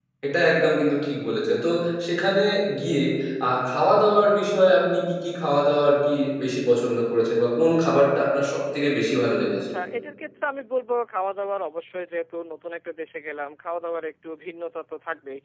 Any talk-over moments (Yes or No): No